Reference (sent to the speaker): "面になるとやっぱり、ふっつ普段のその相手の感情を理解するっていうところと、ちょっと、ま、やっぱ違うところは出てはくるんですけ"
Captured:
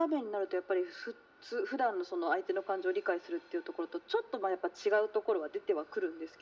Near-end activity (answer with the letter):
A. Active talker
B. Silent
B